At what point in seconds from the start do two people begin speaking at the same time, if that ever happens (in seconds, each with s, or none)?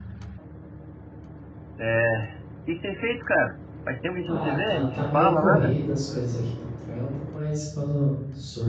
4.3 s